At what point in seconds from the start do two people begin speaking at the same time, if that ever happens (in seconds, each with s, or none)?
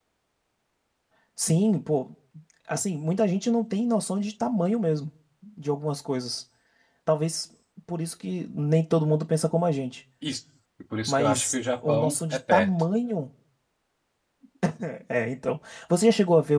11.1 s